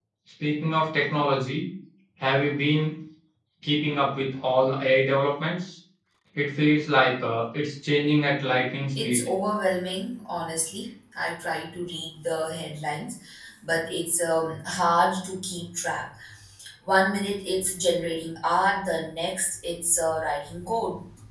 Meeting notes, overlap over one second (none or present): none